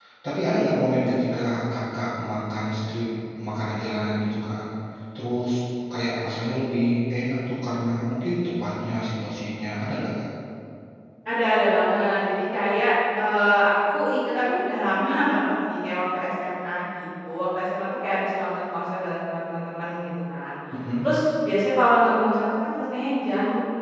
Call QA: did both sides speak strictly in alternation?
Yes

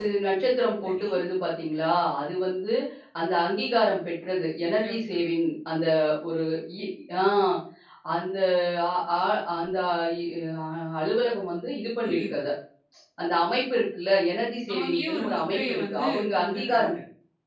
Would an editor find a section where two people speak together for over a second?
Yes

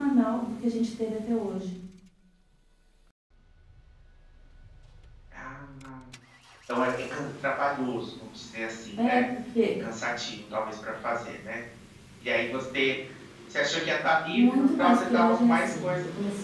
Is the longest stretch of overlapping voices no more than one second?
No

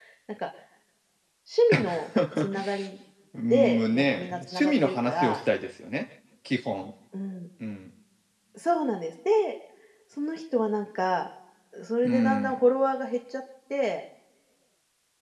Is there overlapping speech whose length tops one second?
Yes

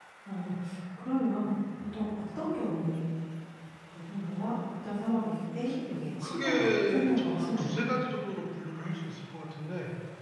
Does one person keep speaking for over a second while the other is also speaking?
Yes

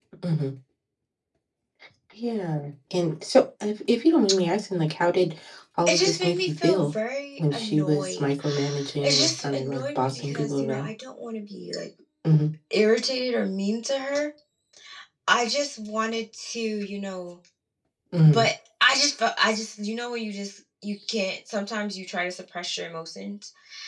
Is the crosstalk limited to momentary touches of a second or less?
No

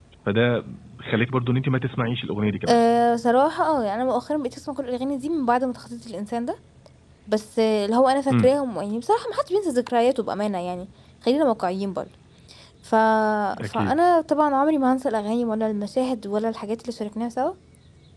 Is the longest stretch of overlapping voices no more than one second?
Yes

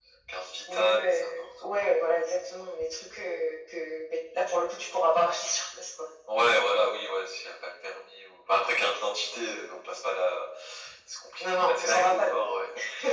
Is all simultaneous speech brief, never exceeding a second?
No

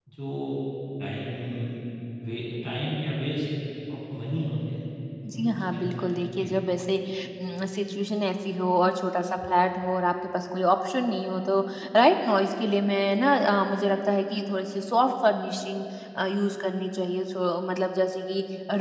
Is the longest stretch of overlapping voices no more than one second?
No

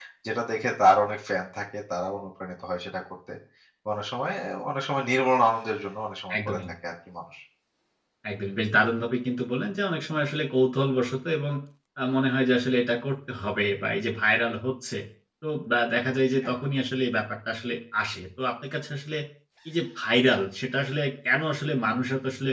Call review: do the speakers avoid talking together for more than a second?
Yes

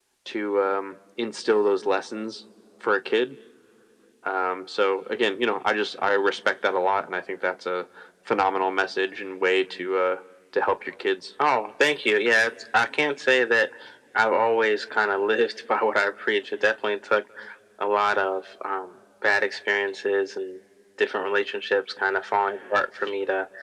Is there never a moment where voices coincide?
Yes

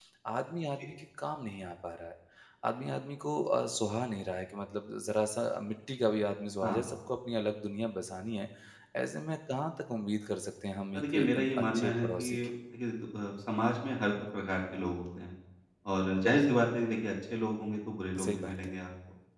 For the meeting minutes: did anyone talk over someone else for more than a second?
Yes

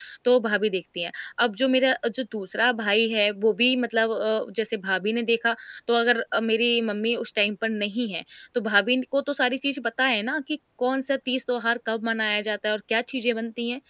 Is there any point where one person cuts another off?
No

